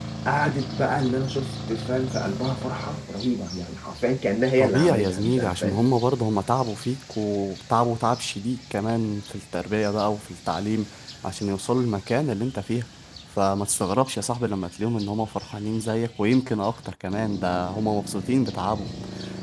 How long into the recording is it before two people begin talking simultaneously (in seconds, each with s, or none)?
4.6 s